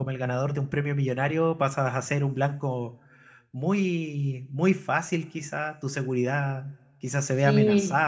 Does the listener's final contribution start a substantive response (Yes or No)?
No